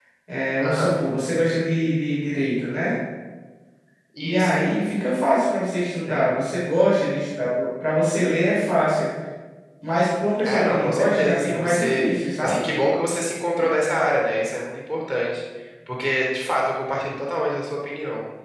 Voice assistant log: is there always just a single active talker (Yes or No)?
No